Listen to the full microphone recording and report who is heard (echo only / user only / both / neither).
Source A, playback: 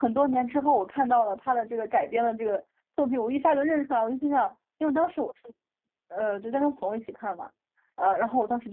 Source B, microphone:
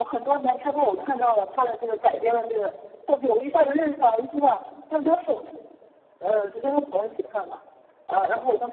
echo only